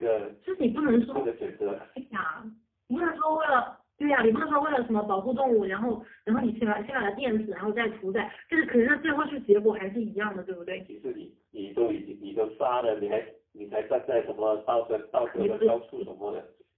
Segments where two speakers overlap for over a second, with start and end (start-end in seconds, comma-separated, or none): none